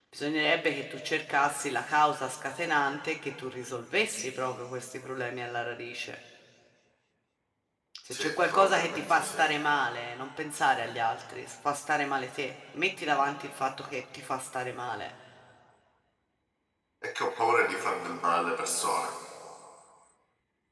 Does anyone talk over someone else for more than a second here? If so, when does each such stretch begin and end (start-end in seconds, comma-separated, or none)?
8.1-9.4